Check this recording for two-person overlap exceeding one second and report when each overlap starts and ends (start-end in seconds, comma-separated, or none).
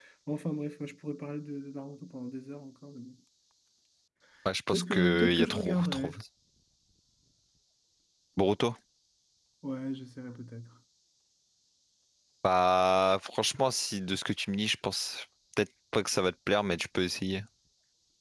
4.7-6.1